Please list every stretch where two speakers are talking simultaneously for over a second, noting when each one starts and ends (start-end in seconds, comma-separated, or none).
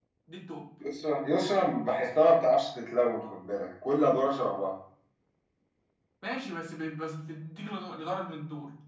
none